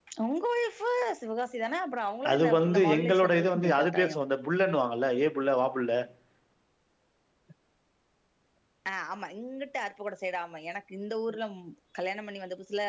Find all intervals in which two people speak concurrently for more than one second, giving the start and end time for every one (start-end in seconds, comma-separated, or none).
2.3-4.2